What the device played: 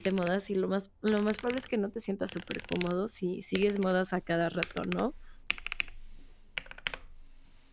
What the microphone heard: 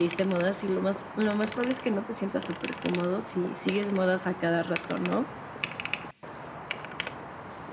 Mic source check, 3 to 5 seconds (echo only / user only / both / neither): echo only